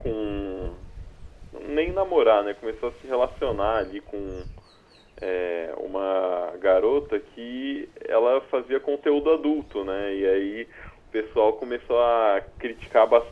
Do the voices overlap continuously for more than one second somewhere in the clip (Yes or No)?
No